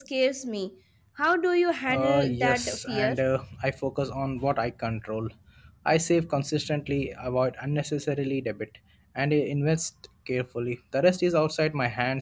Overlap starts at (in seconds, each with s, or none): 1.9 s